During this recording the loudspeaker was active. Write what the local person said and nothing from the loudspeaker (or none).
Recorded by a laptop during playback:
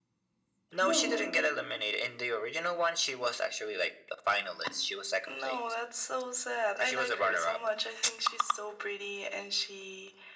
Both.